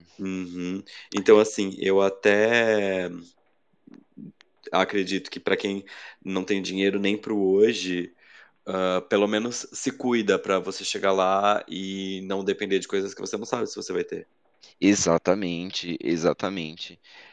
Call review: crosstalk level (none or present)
none